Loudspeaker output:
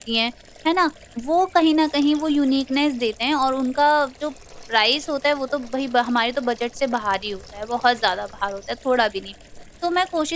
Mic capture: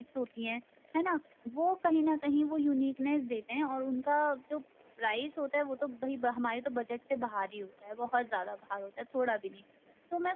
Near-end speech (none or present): none